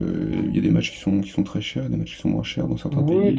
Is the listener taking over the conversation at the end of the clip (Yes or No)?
Yes